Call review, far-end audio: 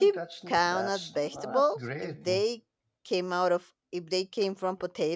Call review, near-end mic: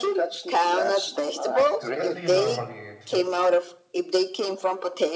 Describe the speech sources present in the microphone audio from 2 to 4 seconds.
both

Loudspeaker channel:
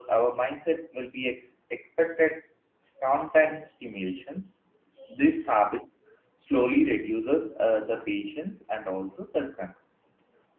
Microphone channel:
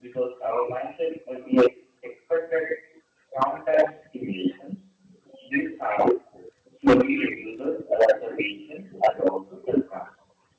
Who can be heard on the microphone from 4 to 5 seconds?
echo only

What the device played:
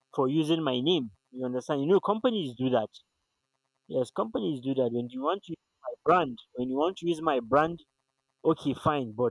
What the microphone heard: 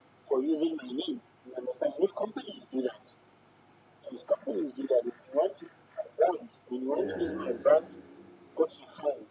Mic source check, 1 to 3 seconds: echo only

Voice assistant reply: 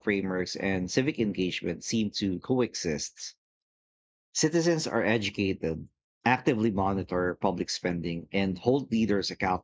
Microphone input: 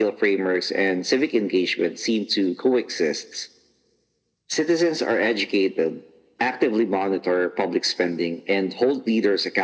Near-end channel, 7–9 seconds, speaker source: echo only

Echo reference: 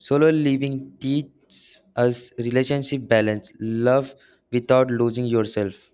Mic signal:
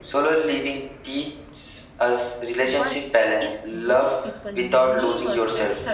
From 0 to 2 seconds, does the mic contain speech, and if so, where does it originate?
echo only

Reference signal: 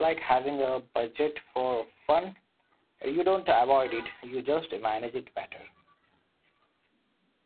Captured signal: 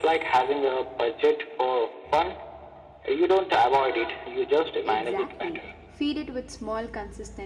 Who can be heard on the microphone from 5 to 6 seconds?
both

